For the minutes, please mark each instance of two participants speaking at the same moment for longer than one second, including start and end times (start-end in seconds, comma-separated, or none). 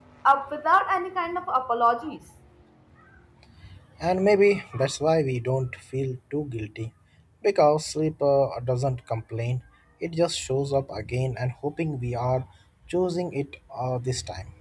none